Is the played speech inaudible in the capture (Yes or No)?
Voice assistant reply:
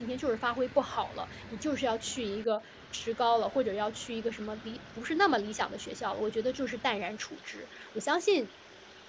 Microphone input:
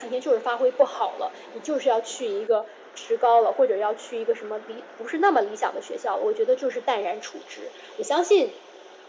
No